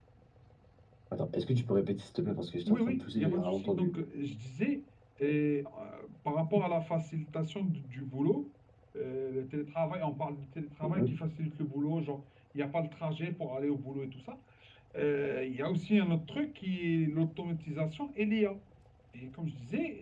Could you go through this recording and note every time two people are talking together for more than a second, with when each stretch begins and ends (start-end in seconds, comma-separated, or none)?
2.7-3.9